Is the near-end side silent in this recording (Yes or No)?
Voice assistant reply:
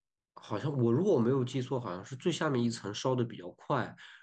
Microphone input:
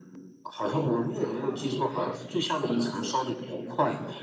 No